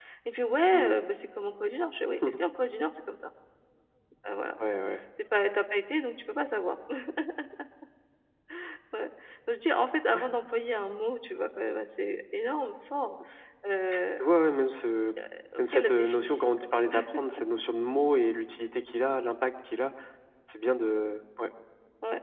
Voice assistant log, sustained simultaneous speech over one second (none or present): present